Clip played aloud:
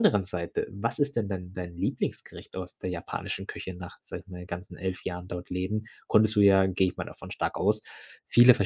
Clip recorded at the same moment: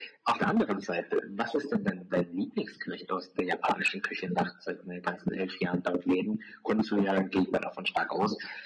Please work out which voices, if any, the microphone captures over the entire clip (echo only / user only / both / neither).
echo only